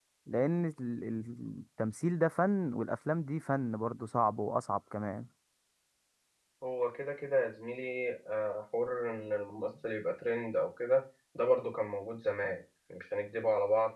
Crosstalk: none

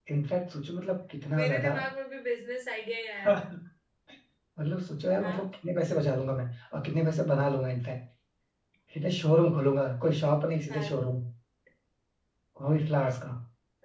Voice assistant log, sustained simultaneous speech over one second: none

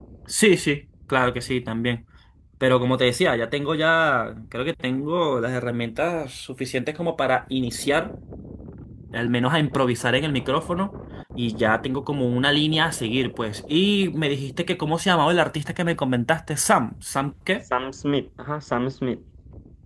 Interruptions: none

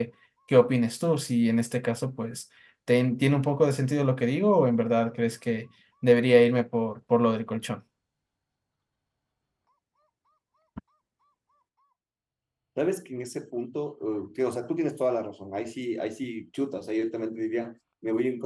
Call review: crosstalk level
none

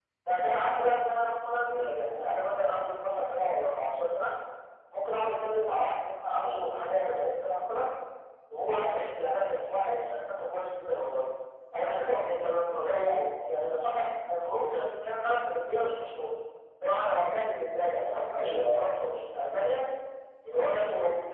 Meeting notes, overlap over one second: none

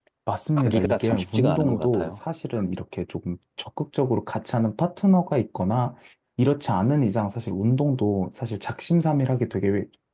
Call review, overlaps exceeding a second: present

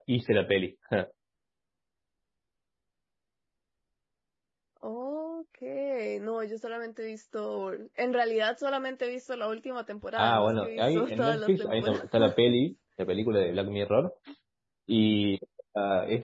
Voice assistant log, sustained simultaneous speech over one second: present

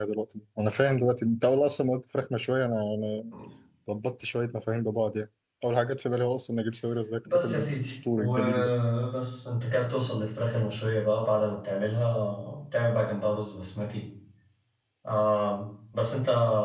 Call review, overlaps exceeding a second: present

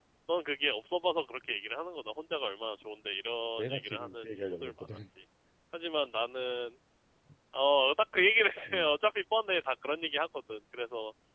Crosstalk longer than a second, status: present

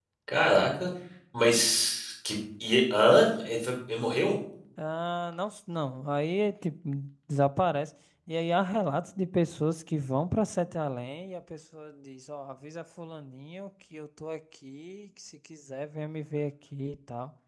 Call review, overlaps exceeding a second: none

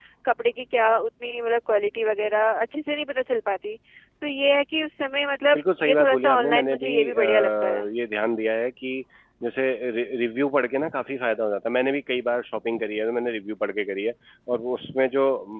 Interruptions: present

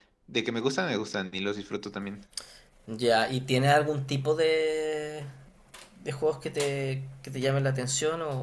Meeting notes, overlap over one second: none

